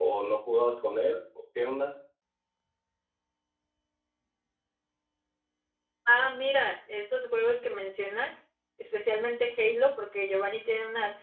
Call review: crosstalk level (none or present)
none